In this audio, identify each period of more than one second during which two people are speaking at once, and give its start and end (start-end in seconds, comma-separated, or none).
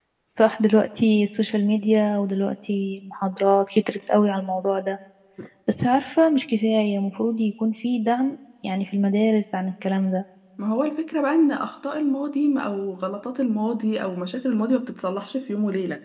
none